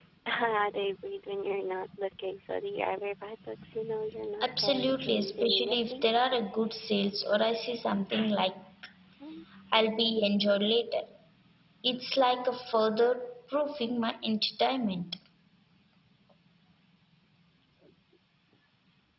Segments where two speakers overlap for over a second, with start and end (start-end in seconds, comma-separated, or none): 4.4-6.0